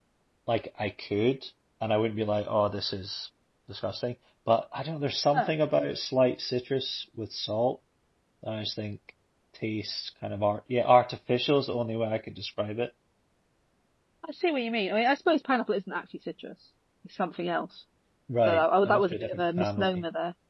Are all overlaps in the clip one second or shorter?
No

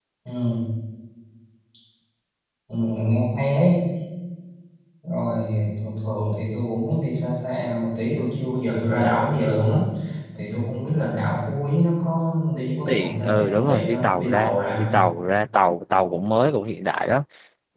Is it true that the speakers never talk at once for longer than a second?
No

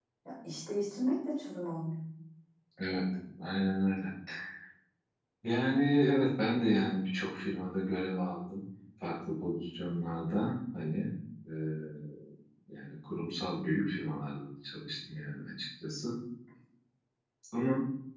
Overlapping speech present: No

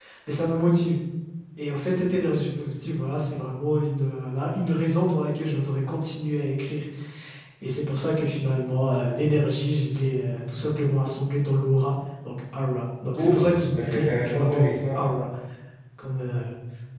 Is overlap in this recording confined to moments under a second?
No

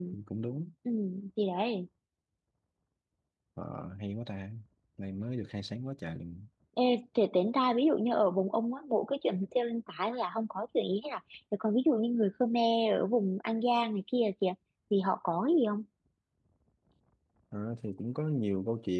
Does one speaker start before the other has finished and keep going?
No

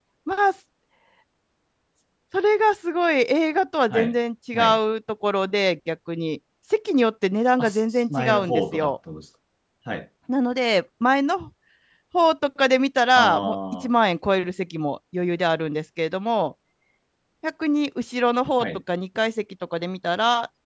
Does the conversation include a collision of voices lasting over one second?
Yes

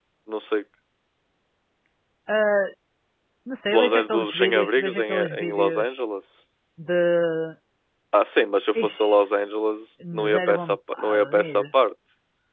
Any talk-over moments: Yes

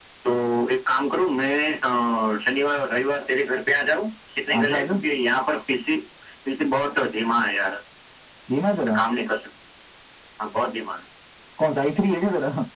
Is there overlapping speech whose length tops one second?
No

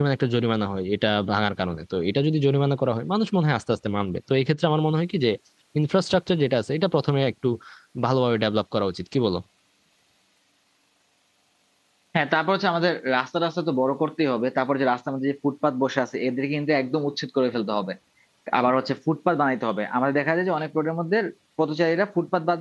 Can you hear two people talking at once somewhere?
No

